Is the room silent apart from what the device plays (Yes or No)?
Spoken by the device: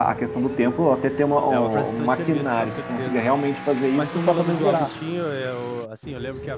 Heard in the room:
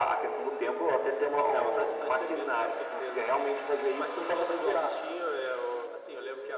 Yes